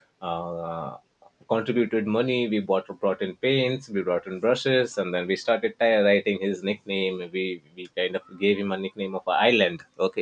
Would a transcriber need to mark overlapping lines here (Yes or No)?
No